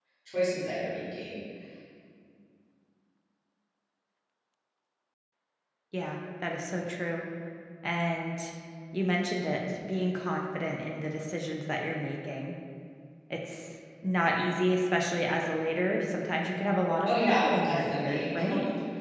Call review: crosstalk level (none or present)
present